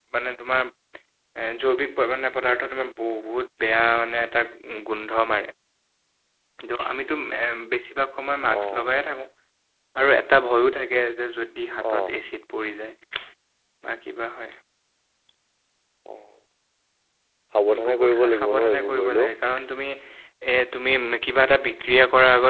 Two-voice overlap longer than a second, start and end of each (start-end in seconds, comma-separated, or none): 17.9-19.3